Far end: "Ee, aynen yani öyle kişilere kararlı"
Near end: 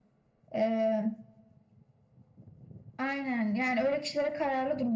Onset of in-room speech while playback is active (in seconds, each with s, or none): none